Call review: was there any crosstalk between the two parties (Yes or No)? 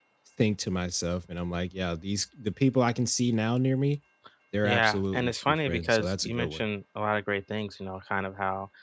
Yes